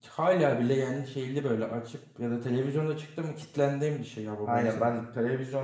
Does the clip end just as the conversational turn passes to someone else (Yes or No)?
Yes